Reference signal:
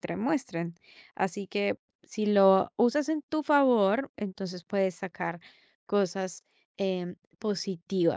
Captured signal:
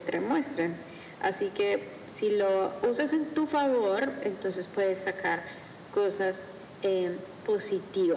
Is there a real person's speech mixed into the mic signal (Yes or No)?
No